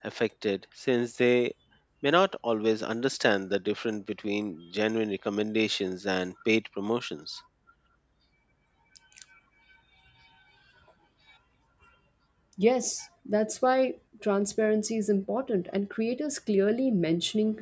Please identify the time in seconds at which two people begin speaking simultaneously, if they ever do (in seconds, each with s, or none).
none